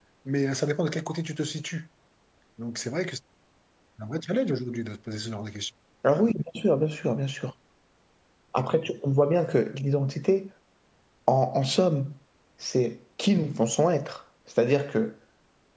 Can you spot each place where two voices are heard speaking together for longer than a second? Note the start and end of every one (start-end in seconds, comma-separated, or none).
none